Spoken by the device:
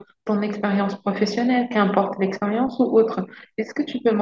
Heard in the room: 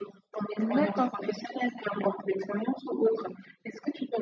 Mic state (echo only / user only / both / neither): both